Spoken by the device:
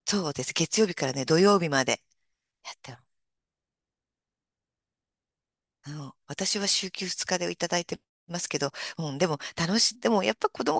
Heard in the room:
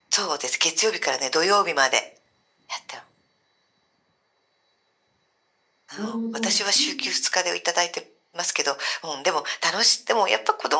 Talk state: both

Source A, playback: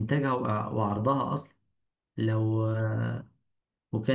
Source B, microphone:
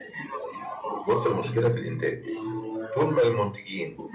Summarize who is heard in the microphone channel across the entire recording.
both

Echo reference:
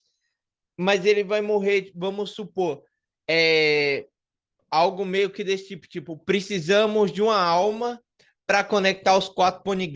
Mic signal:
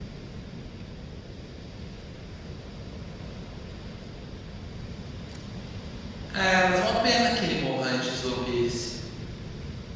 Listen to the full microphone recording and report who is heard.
user only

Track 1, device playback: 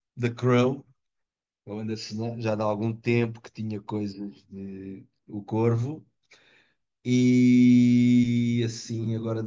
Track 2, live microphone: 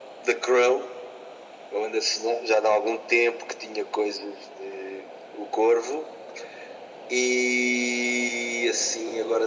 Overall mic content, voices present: echo only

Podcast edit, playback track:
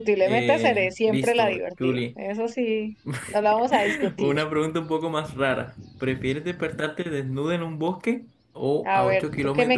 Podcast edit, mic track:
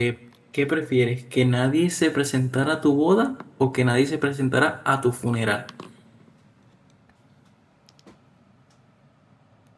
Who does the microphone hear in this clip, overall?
user only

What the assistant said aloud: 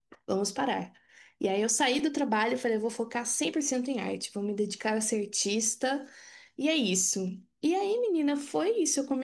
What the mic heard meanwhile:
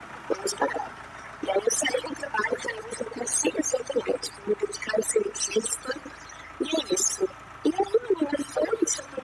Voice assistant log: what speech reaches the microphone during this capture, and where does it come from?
echo only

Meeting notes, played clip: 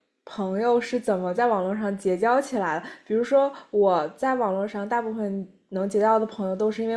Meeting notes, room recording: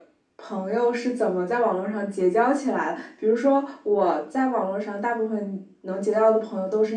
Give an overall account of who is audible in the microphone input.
echo only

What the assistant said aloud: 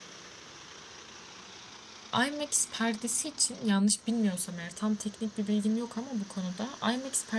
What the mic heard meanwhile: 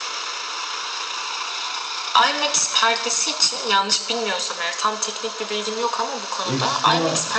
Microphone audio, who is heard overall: both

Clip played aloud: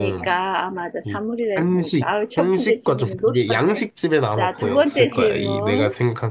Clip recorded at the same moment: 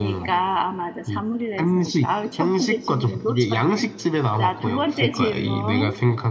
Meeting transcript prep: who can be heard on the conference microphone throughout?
echo only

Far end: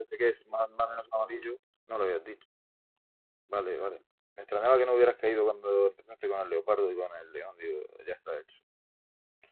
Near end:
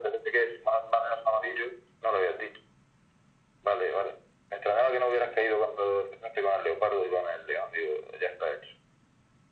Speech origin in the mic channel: echo only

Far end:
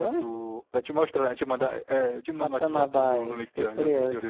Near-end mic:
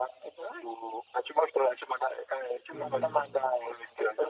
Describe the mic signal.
both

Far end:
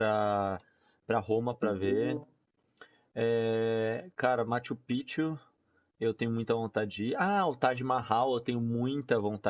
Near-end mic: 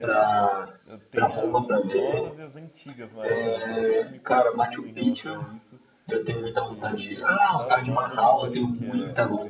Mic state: both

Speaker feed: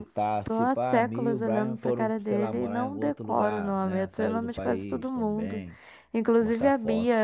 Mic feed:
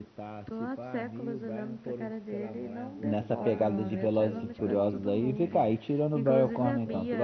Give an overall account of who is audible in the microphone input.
both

